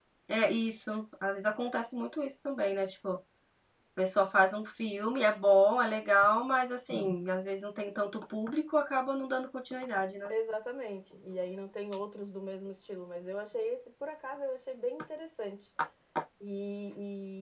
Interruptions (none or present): none